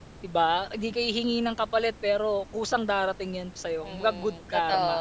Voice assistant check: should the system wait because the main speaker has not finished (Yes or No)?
No